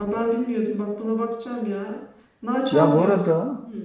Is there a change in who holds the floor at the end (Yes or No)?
Yes